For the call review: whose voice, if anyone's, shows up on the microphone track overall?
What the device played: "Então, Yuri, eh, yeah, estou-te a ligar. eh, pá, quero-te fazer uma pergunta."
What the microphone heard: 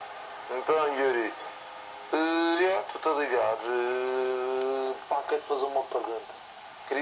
echo only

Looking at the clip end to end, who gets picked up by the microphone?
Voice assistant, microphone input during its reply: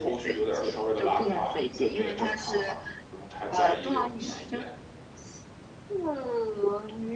both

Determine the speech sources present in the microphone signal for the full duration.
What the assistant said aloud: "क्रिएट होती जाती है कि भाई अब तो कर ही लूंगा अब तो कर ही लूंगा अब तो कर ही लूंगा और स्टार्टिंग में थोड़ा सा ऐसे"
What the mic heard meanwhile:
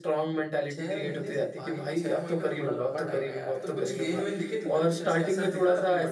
both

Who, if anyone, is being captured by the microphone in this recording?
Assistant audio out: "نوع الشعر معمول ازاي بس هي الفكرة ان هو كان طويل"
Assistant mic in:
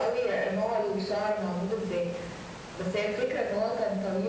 echo only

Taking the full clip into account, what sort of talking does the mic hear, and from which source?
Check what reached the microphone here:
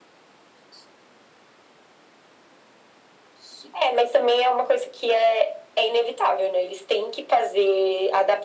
echo only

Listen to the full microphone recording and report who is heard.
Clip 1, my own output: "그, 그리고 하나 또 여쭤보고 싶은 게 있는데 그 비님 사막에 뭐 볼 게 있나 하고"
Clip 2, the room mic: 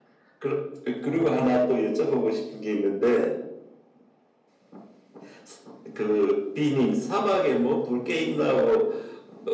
echo only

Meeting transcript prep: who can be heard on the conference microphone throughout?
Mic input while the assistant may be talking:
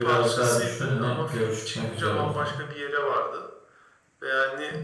both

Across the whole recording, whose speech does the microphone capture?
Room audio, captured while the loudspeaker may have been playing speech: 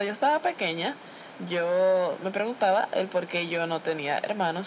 echo only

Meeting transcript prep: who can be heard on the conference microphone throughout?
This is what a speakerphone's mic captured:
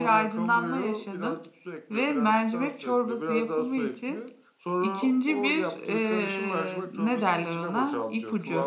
echo only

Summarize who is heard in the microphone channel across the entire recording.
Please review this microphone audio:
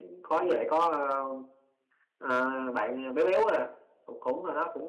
user only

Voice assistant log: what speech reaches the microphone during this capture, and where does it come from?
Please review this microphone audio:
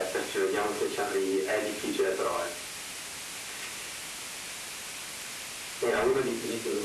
echo only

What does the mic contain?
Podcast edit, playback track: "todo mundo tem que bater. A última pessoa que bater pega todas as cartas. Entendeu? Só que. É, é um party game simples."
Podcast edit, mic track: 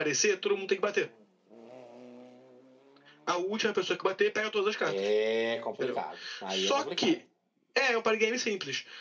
both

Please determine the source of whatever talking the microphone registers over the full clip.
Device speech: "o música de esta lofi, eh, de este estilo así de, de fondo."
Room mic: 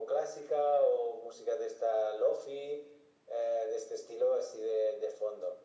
echo only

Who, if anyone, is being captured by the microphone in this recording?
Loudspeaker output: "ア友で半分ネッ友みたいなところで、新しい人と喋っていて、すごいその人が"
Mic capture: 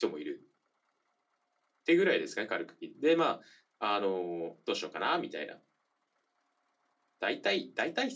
user only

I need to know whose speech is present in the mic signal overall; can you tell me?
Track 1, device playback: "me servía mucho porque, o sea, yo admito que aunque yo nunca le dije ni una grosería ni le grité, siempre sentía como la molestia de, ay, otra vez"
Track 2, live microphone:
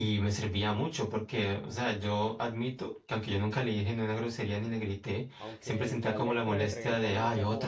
both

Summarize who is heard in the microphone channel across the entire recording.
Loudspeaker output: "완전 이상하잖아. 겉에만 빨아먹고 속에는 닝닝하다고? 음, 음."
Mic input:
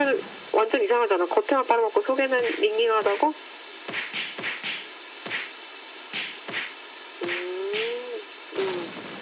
echo only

